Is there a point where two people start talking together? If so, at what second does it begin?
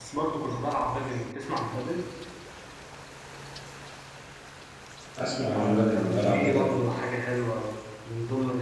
5.5 s

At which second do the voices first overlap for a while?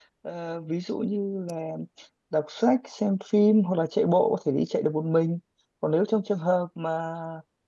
none

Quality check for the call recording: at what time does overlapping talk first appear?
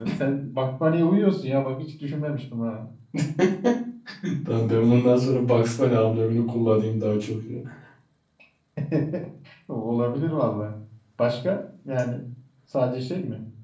none

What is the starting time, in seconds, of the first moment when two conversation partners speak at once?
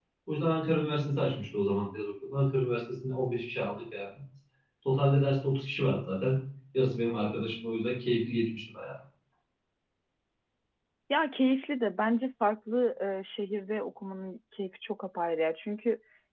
none

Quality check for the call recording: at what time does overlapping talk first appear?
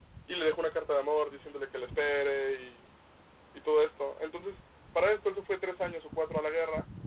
none

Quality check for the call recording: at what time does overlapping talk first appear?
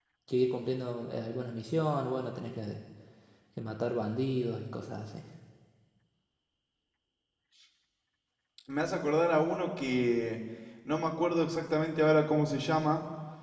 none

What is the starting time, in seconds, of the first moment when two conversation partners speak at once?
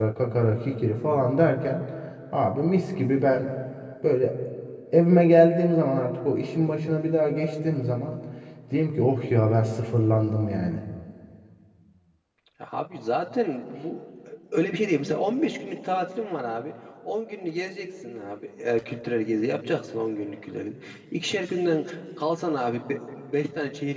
none

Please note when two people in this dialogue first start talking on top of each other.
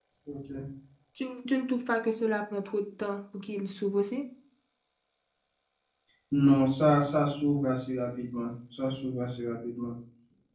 none

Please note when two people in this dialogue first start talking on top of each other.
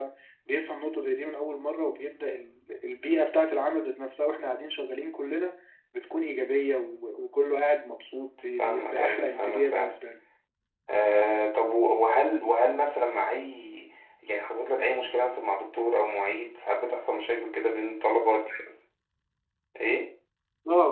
8.6 s

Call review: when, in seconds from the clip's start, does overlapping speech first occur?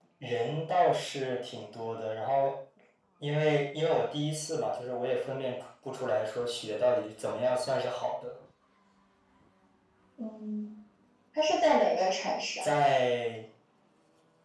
none

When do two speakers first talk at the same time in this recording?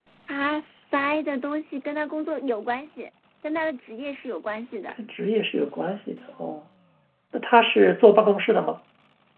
none

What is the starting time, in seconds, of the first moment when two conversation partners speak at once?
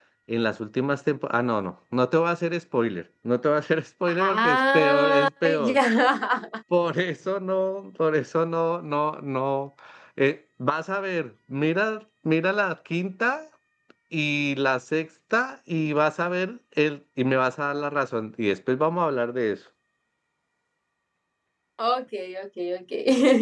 4.1 s

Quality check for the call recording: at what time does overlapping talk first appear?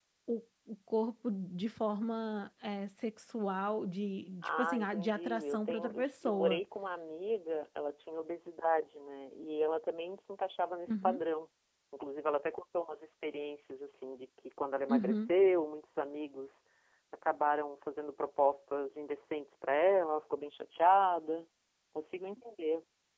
4.4 s

